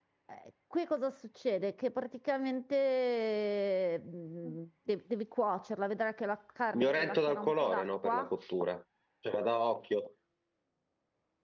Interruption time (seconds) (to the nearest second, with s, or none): 7 s